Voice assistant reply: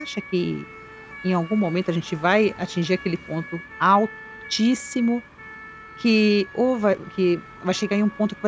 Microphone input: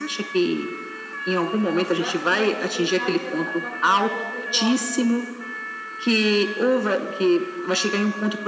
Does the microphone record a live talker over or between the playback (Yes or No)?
Yes